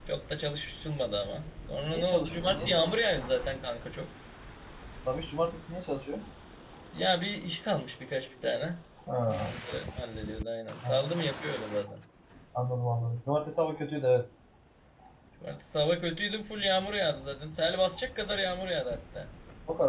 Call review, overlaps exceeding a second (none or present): present